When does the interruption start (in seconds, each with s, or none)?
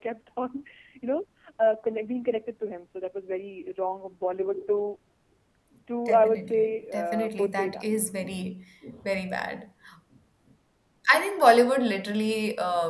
6.1 s